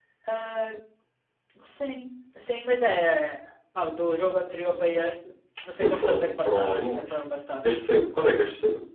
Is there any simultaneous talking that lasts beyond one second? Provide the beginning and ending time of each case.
5.8-7.2

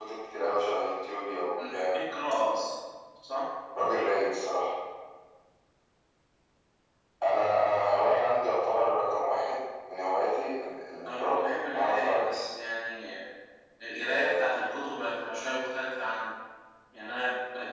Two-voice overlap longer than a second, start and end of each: 11.1-12.3

